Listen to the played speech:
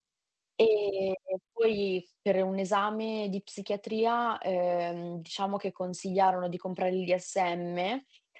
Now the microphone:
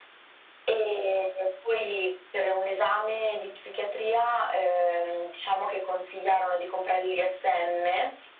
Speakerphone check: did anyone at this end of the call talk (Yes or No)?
No